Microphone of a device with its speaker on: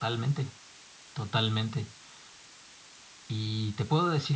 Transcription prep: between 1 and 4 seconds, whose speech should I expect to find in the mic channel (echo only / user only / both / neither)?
echo only